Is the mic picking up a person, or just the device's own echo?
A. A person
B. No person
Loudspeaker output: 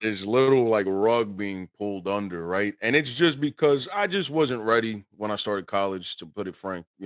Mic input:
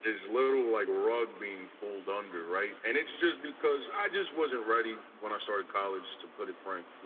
B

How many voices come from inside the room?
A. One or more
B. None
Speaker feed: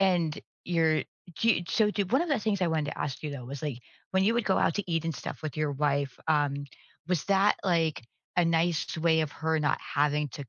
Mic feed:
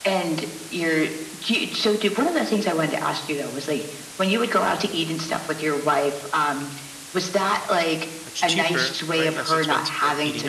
A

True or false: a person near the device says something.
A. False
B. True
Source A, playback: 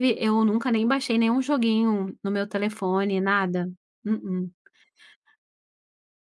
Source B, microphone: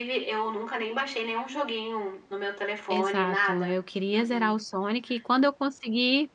B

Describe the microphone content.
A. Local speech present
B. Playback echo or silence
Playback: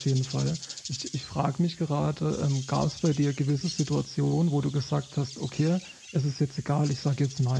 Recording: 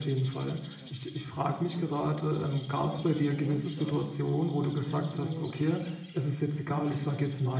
A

